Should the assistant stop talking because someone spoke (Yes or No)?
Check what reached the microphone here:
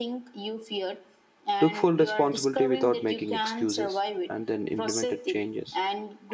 Yes